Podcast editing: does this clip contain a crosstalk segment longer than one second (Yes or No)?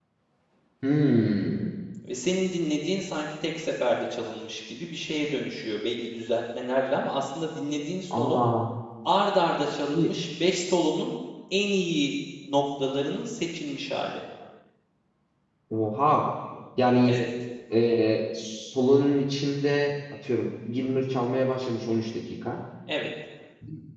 No